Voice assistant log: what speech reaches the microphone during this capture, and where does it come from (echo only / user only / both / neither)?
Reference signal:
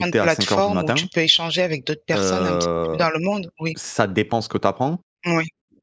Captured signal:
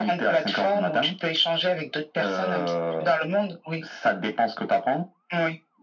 echo only